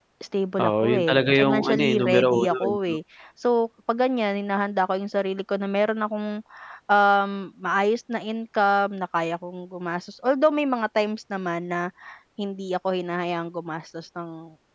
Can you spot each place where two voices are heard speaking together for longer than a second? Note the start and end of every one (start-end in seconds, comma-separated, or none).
0.6-3.0